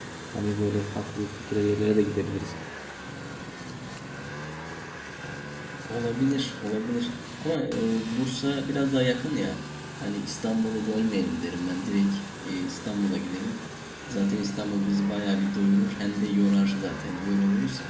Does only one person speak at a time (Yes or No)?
Yes